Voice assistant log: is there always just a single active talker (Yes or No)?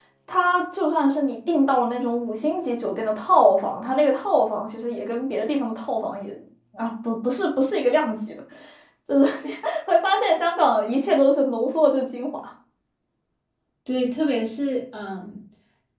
Yes